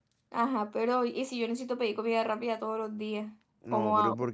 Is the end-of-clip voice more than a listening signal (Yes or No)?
Yes